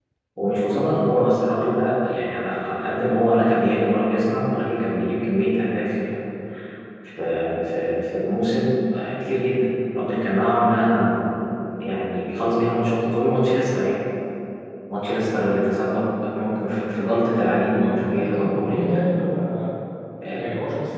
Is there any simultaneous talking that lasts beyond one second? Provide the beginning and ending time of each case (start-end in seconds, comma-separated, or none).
17.6-18.9